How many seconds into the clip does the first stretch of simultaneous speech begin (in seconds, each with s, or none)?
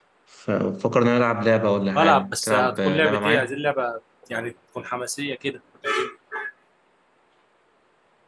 2.0 s